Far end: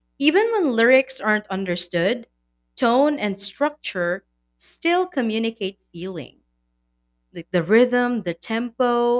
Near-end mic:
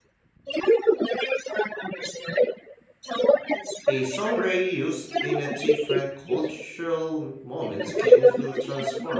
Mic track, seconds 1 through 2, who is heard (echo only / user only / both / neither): echo only